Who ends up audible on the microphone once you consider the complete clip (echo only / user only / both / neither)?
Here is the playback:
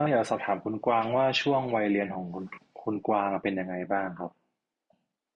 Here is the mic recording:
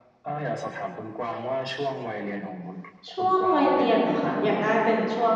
both